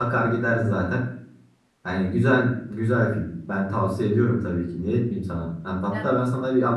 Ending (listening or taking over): listening